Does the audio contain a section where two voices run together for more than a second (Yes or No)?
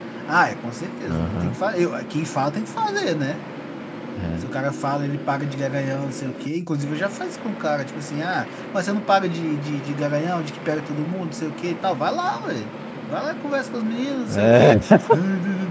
No